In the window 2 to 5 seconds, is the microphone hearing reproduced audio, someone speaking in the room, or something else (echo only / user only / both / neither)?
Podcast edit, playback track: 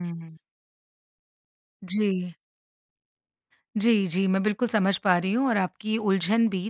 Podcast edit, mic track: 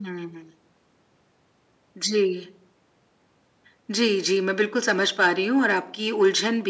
echo only